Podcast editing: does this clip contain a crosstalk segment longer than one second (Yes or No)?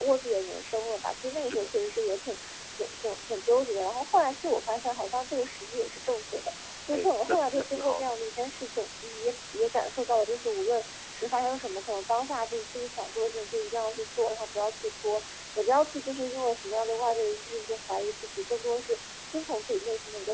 Yes